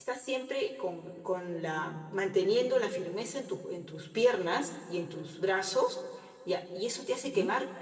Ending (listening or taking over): listening